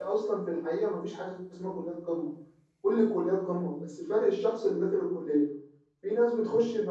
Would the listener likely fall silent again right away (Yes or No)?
Yes